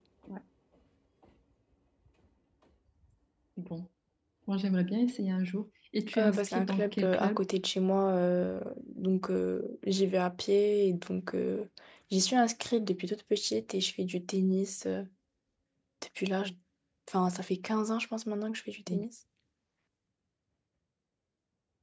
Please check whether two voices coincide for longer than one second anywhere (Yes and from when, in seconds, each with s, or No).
Yes, from 6.1 s